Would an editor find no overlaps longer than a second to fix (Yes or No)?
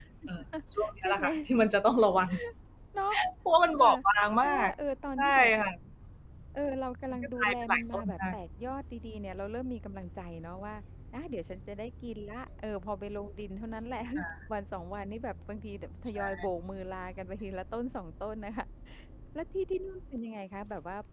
No